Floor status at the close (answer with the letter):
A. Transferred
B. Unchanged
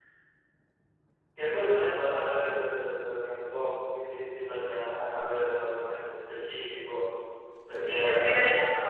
A